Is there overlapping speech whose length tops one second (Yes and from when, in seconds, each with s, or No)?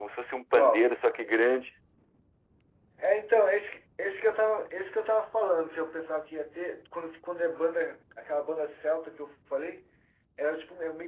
No